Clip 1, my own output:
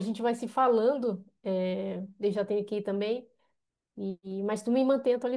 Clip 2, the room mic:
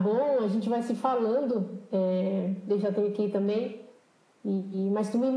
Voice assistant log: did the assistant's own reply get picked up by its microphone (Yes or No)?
Yes